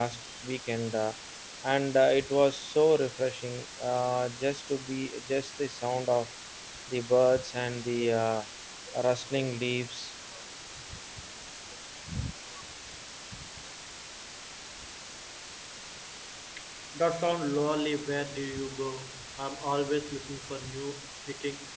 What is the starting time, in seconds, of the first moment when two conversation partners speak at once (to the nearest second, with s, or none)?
none